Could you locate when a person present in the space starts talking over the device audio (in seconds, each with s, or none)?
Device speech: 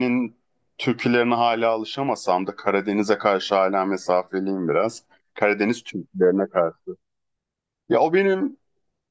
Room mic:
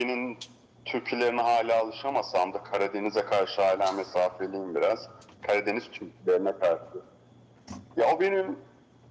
none